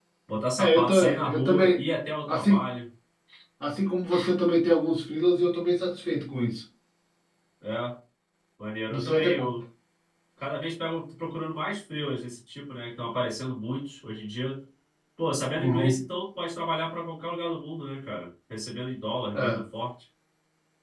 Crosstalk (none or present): present